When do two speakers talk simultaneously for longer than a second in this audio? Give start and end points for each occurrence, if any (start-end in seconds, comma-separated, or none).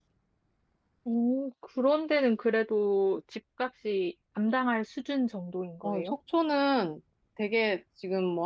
none